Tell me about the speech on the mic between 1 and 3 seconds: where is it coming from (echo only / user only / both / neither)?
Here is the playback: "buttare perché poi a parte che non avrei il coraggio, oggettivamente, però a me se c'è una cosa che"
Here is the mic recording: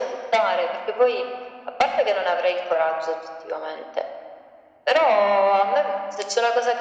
echo only